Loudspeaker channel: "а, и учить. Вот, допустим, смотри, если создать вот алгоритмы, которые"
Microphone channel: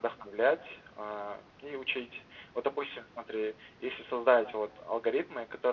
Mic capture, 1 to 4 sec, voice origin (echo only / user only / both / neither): echo only